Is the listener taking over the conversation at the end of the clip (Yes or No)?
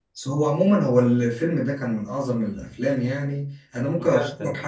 No